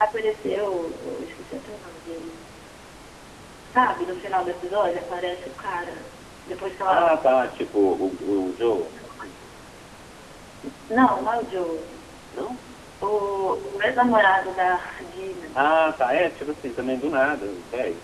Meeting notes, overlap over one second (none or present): none